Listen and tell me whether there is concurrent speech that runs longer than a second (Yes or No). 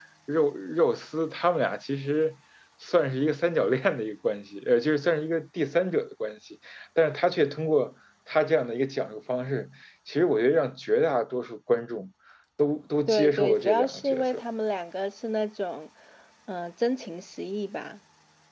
Yes